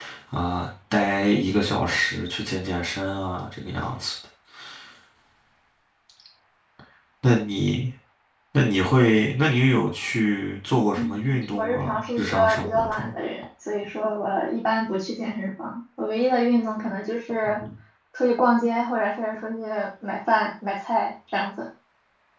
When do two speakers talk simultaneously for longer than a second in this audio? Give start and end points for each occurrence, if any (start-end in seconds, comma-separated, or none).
11.0-13.1